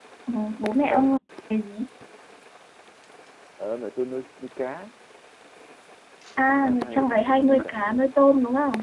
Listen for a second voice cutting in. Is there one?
Yes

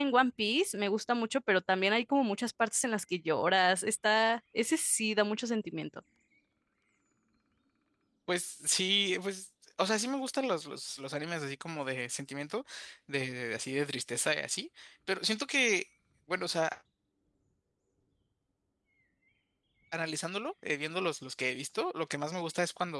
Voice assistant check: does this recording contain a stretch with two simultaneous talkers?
No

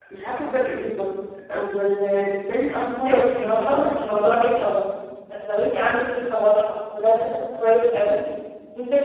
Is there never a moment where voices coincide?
No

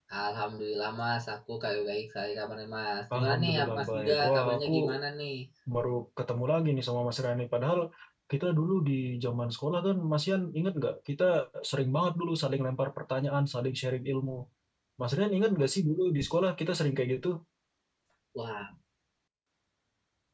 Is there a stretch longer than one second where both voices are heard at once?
Yes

